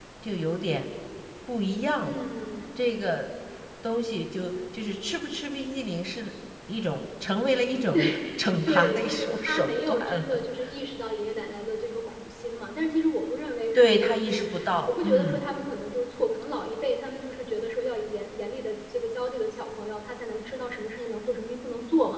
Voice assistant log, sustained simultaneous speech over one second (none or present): present